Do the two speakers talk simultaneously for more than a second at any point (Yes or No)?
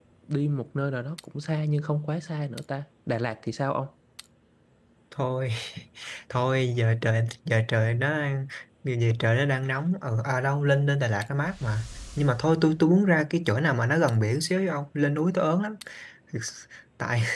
No